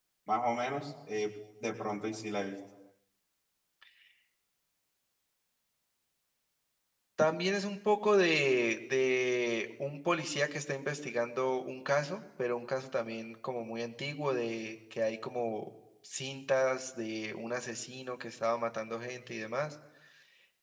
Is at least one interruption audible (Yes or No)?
No